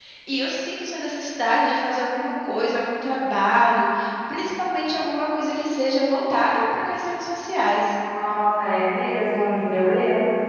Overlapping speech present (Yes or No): No